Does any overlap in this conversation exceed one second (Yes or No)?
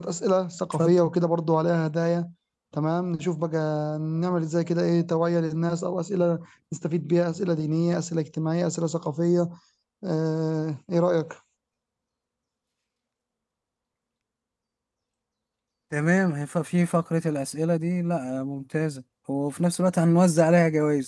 No